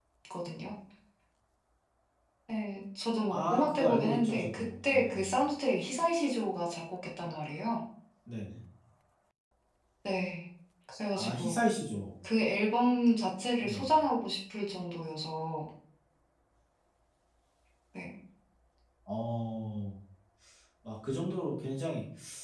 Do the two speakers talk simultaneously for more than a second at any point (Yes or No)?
Yes